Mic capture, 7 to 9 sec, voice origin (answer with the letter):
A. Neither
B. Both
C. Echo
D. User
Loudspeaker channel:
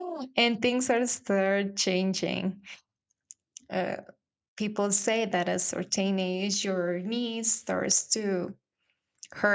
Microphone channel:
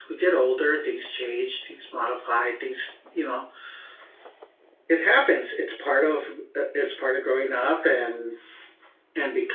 D